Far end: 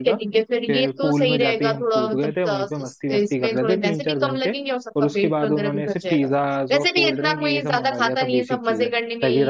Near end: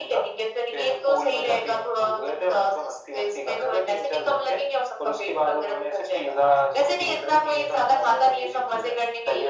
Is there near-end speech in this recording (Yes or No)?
No